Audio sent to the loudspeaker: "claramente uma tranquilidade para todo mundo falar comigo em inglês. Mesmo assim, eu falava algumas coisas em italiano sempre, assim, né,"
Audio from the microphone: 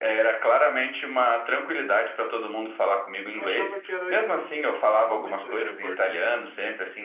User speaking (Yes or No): Yes